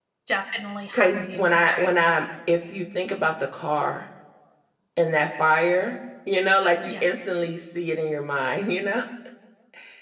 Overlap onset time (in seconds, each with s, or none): 0.9 s